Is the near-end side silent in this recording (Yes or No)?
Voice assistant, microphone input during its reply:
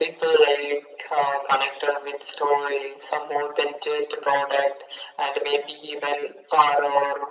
Yes